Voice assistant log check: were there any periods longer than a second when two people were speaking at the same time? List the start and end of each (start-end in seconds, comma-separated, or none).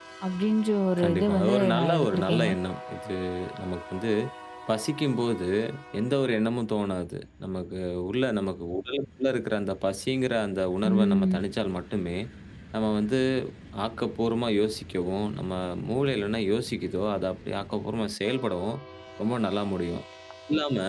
1.0-2.5